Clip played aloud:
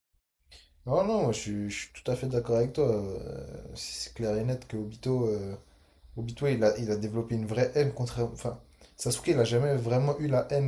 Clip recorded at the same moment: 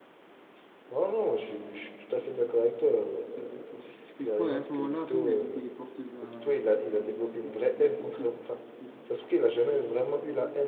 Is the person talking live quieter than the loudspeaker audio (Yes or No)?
Yes